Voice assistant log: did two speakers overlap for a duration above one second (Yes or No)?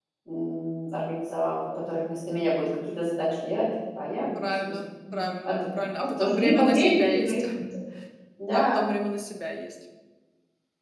Yes